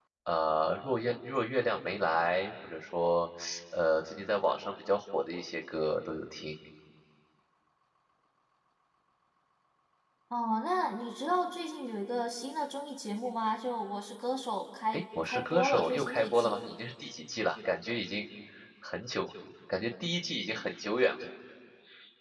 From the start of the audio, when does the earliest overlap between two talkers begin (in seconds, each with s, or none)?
14.9 s